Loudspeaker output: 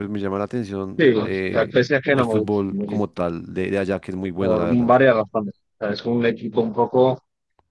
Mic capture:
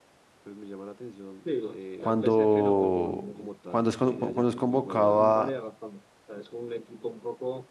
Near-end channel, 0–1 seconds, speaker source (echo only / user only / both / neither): echo only